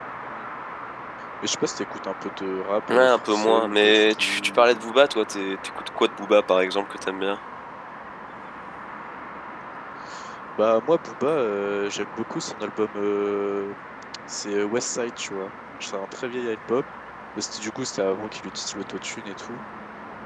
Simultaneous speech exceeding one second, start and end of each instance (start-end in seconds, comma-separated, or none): 2.9-4.8